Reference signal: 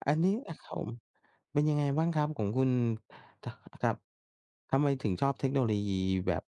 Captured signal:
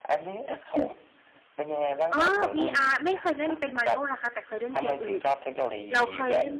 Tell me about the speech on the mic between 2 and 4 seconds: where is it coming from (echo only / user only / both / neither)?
both